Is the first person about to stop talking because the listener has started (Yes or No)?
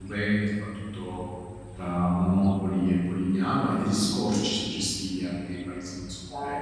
Yes